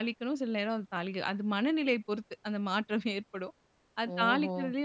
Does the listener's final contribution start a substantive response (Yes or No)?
No